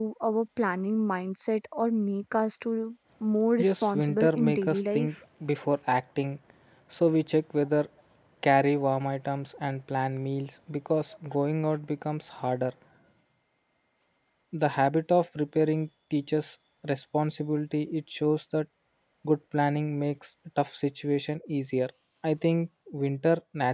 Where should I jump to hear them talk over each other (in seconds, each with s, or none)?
3.6 s